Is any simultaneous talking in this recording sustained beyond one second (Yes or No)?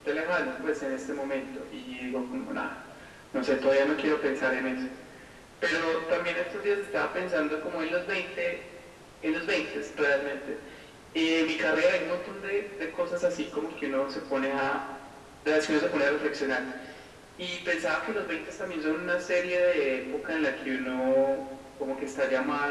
No